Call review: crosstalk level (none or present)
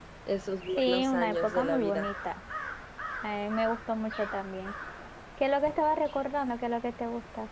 present